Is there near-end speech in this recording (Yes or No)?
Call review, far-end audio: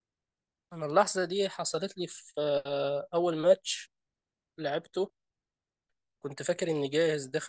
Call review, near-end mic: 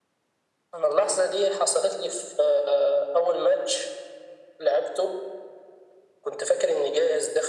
No